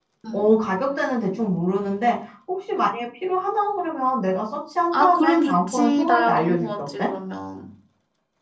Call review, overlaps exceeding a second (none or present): present